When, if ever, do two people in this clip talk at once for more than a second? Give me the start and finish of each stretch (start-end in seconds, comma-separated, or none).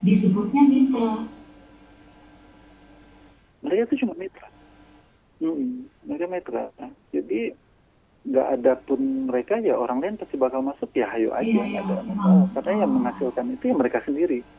11.4-13.2